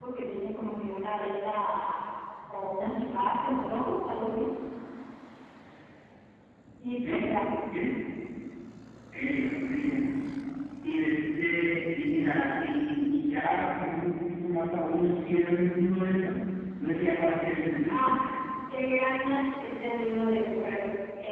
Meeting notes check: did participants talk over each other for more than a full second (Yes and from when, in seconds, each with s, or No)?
No